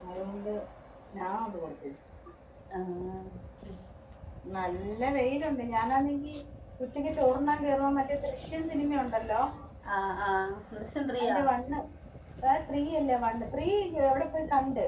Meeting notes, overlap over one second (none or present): none